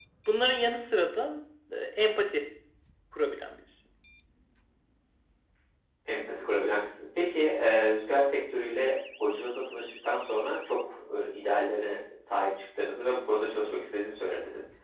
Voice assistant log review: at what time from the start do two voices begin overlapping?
none

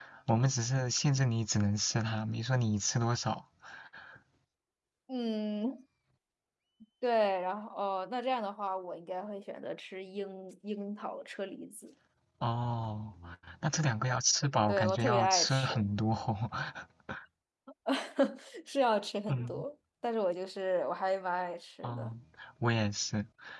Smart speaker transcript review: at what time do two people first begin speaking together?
15 s

